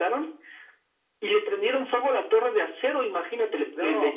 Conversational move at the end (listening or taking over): listening